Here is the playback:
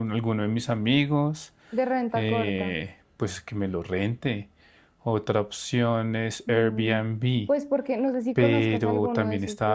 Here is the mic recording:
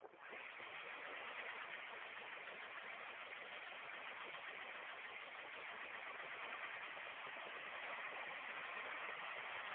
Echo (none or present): none